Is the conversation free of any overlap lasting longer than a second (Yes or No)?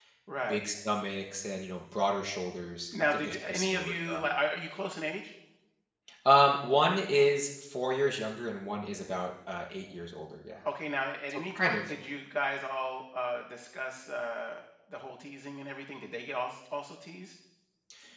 No